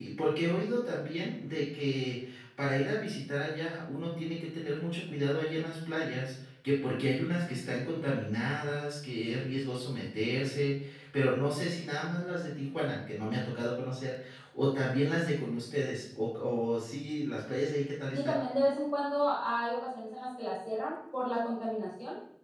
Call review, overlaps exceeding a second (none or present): none